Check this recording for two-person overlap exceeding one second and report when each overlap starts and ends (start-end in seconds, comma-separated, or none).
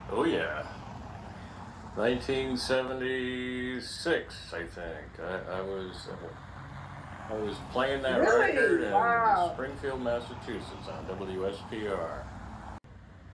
8.1-9.5